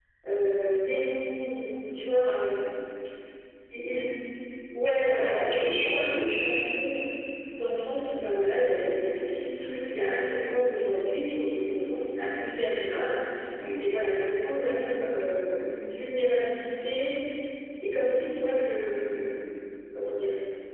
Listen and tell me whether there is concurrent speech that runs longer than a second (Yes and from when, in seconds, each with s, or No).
Yes, from 5.1 s